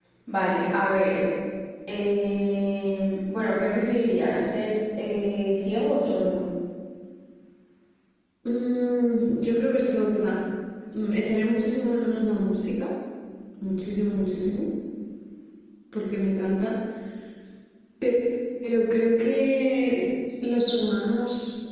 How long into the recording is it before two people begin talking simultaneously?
none

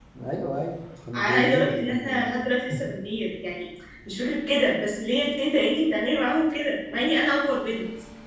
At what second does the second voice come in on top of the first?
1.1 s

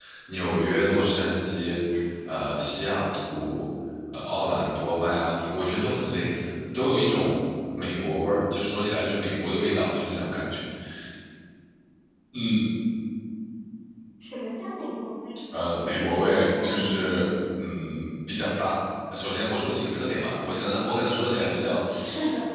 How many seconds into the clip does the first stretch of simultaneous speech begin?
15.6 s

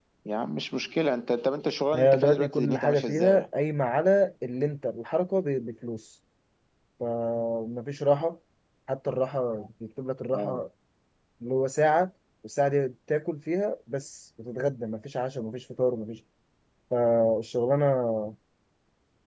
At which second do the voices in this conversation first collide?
1.9 s

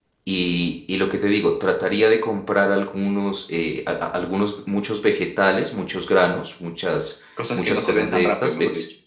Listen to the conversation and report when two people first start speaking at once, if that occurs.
7.4 s

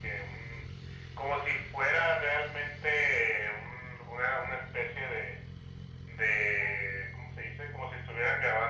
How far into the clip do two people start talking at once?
none

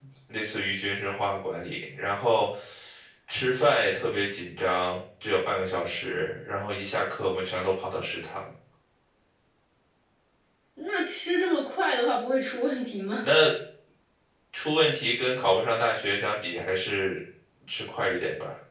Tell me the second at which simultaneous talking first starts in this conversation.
none

